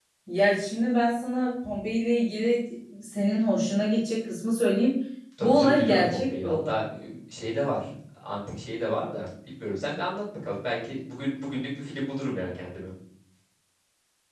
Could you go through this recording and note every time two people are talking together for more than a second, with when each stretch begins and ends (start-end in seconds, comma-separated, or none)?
5.4-6.8